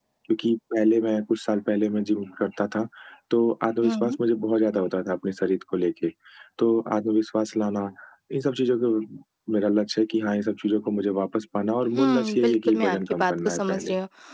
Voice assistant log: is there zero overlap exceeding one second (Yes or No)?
No